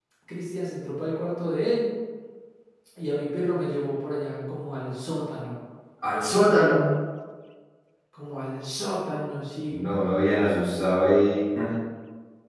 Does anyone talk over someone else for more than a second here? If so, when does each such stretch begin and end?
none

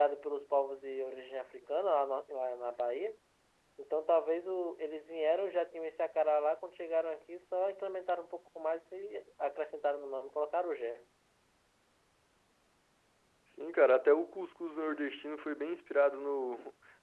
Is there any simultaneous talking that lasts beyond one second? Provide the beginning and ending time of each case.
none

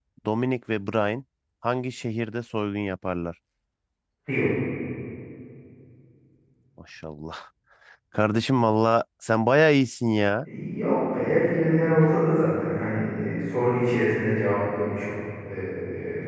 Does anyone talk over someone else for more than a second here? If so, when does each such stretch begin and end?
none

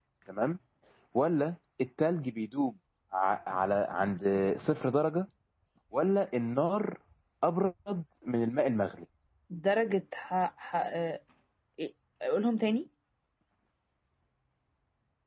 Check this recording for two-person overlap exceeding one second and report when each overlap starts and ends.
none

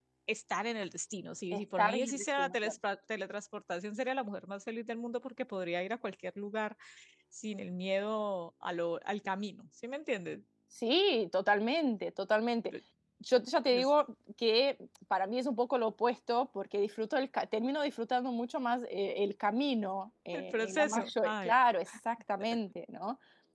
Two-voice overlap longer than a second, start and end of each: 1.5-2.7, 20.3-21.5

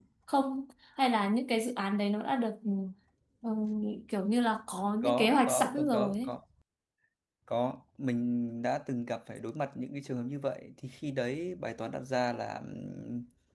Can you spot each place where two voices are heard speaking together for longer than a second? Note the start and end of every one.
5.0-6.3

